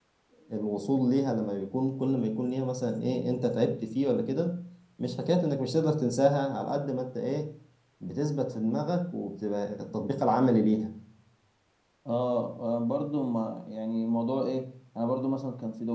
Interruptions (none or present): none